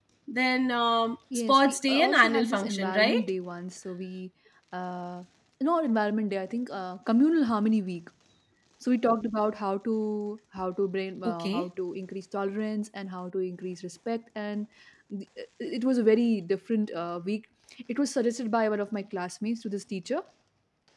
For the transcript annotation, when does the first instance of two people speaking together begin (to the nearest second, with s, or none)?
1 s